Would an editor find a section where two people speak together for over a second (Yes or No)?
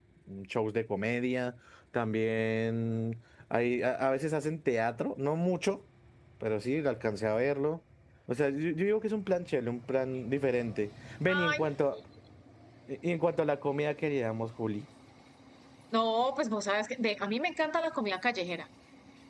No